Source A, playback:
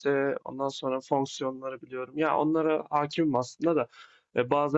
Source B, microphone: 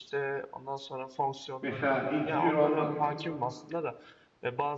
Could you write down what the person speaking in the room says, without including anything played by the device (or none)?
Mesela integer olması,